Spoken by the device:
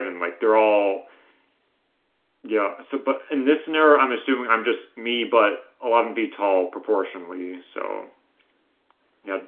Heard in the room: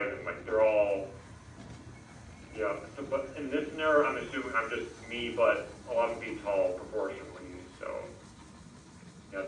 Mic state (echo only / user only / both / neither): echo only